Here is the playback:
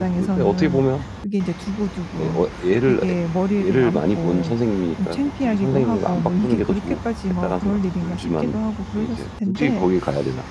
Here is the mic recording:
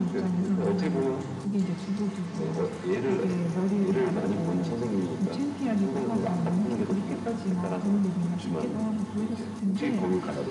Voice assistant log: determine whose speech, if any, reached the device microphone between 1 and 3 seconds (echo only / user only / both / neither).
echo only